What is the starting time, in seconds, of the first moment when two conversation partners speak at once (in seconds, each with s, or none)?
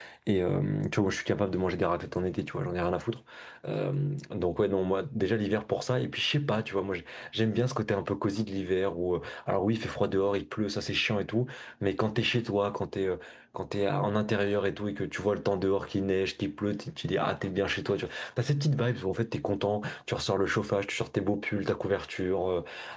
none